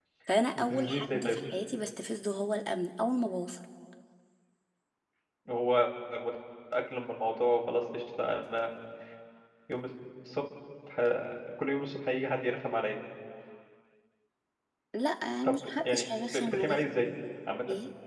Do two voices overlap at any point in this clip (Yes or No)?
Yes